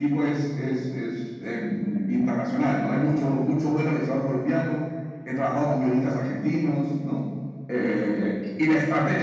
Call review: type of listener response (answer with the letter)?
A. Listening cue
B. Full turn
A